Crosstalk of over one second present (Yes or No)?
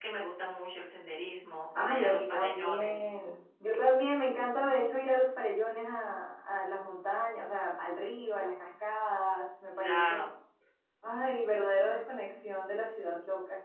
Yes